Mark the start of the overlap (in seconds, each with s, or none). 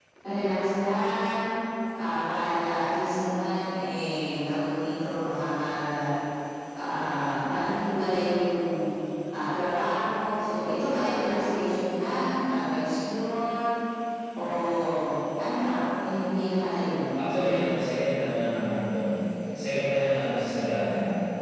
none